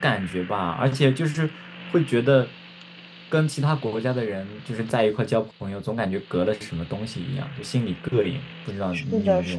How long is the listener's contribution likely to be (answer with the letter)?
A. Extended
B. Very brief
A